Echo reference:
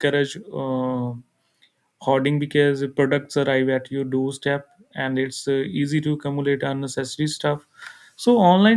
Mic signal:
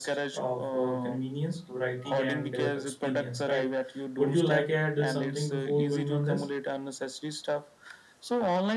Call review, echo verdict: present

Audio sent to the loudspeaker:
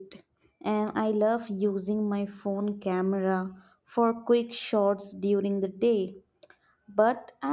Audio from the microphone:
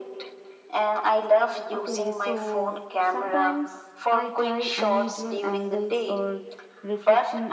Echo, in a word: present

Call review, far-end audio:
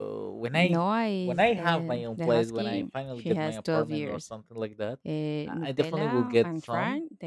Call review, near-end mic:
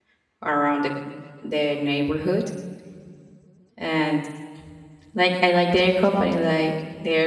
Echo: none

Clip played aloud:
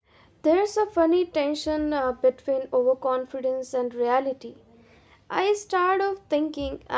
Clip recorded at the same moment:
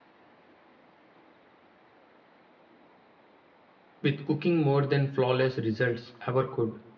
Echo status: none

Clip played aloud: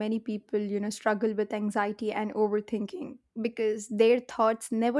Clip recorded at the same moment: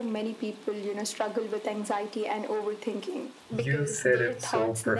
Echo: present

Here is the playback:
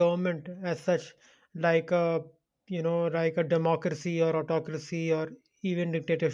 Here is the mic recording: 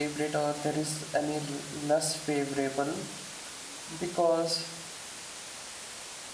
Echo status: none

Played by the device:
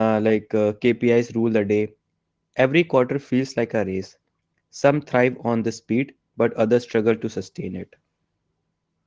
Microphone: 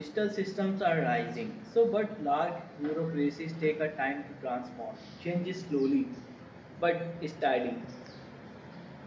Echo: none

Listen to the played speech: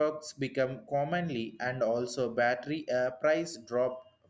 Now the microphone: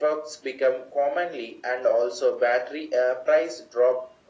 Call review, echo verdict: present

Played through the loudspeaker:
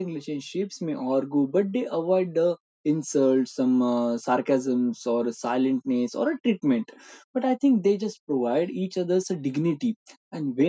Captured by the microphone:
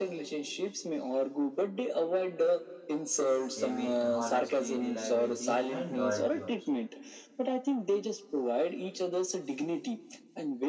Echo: present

